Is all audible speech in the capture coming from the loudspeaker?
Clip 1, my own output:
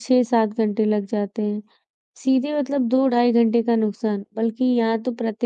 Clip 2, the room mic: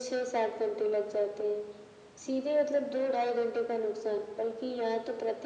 Yes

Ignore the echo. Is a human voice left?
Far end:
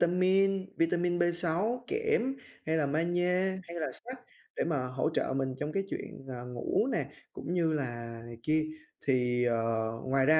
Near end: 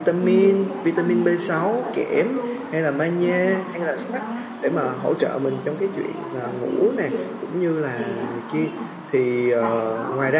Yes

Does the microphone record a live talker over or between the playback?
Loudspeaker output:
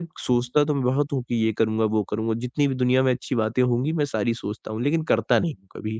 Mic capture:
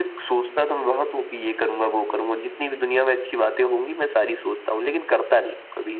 No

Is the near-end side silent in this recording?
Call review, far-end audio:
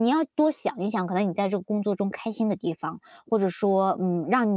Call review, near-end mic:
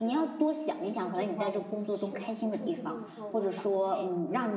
No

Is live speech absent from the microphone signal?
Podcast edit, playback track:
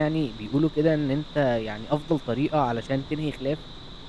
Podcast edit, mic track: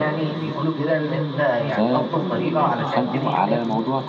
No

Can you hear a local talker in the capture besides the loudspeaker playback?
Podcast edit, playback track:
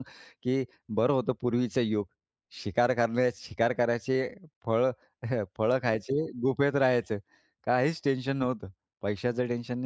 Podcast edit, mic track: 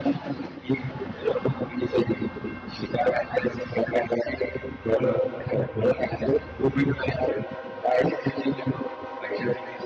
No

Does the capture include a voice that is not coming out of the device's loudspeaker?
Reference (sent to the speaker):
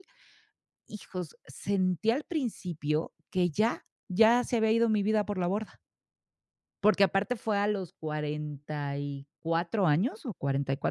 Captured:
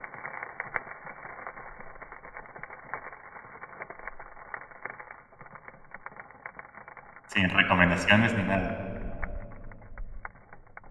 Yes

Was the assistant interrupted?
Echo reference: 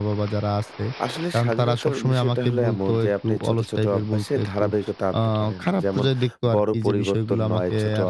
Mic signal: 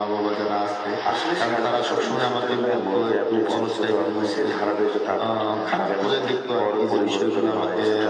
No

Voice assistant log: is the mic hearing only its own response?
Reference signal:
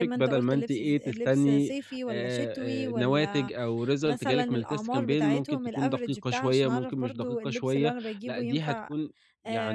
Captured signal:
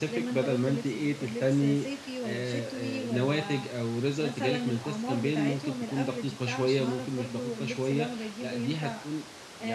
Yes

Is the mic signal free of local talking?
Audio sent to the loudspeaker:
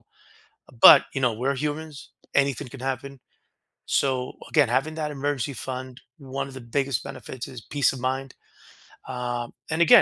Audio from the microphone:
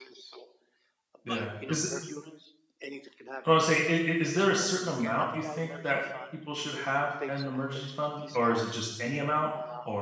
No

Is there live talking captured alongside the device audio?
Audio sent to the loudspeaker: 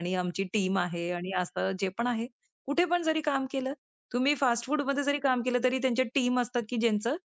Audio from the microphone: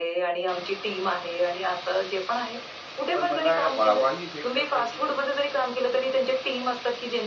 Yes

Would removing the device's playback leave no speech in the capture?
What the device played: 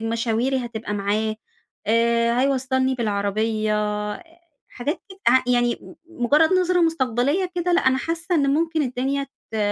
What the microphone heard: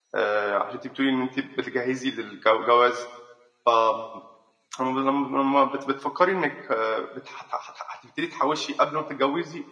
No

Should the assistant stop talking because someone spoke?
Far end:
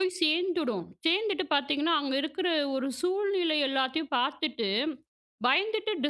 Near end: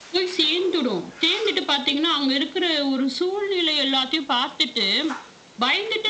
No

